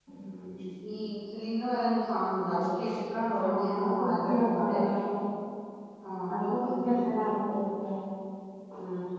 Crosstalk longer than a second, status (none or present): present